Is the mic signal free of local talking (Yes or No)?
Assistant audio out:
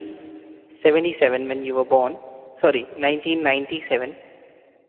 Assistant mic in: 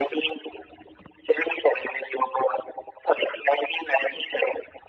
Yes